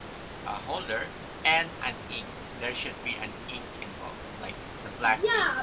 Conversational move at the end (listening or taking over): taking over